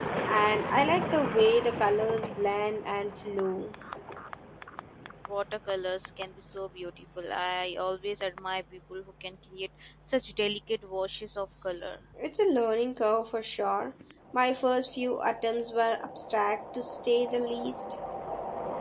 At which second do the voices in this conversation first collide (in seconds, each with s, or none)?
none